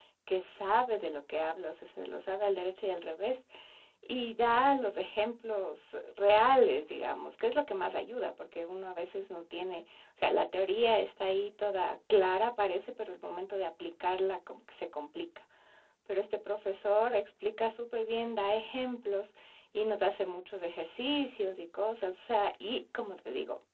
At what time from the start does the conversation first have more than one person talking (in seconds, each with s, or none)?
none